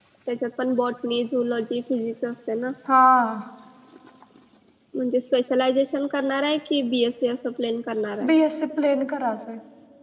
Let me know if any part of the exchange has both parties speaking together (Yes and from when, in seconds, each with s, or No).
No